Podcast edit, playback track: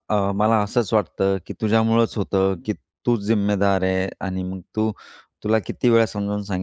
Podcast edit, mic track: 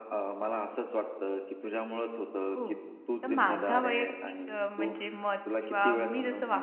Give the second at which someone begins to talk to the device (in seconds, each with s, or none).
2.5 s